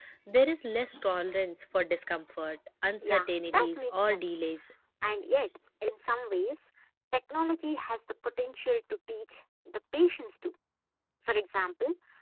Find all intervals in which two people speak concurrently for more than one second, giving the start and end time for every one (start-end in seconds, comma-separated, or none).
3.0-4.4